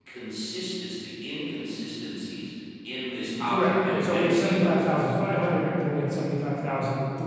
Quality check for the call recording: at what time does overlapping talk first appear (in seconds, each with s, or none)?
3.3 s